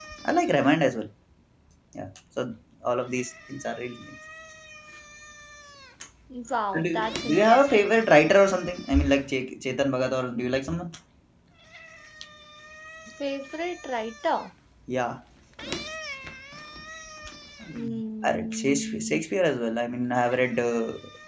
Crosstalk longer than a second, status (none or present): present